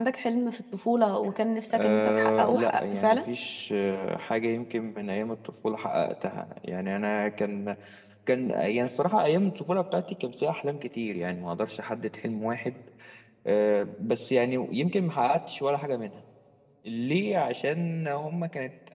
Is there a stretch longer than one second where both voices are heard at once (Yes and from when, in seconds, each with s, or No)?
Yes, from 1.7 s